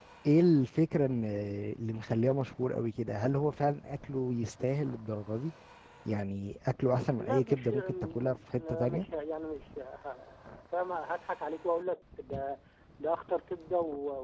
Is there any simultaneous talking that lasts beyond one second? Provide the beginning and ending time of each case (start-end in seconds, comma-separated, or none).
7.2-9.1